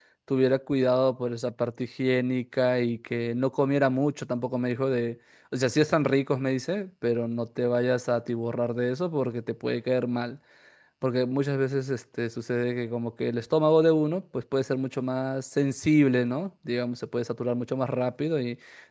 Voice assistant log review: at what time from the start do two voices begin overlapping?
none

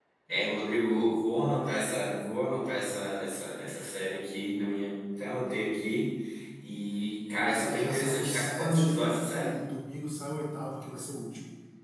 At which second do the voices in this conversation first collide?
7 s

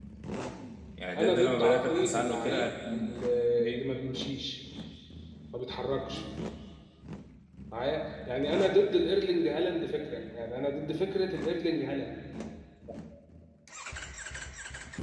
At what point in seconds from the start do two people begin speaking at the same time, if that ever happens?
1 s

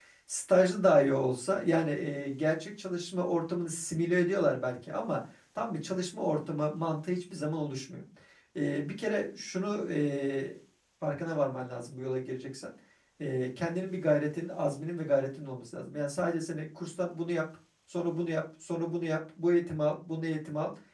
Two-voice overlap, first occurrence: none

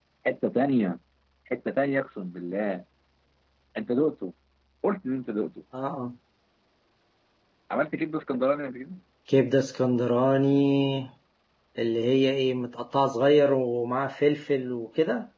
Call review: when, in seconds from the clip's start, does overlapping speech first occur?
none

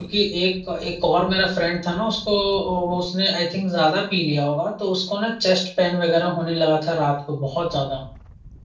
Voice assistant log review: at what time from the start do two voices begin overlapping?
none

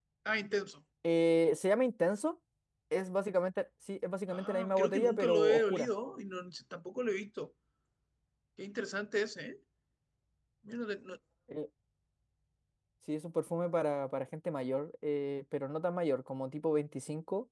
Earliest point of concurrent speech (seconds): 4 s

